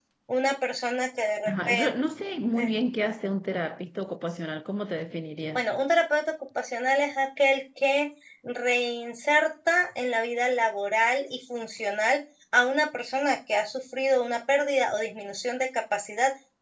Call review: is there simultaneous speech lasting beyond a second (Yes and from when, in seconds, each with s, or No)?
No